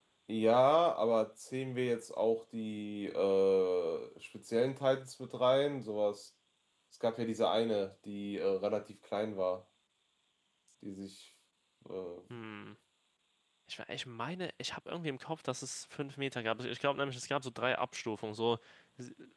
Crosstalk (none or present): none